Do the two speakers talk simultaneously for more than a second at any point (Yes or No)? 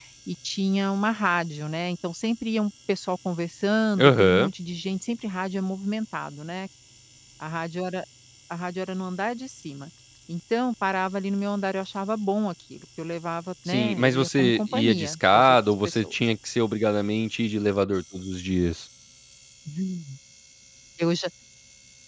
Yes